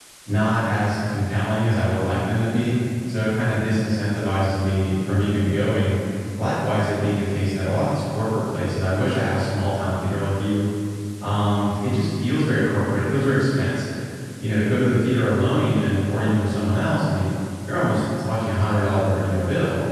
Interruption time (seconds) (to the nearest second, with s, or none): none